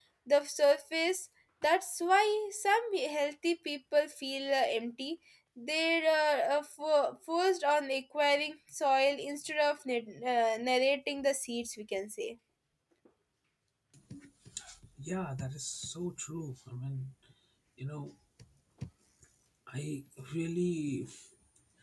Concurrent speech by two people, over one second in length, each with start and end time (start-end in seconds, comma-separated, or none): none